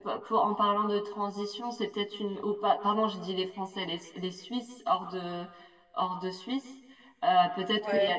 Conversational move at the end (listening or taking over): listening